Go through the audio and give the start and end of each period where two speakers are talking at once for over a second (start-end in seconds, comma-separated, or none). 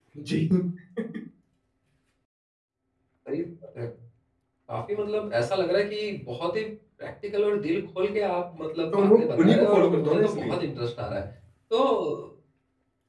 8.9-10.6